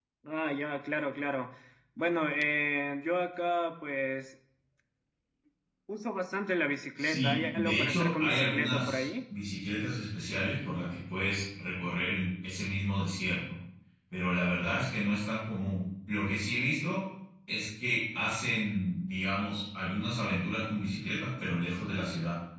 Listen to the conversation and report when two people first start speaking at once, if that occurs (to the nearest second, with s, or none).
7 s